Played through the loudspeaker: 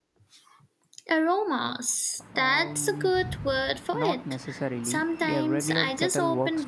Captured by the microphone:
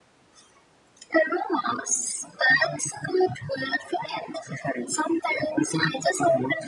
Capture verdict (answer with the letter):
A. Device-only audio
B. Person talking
A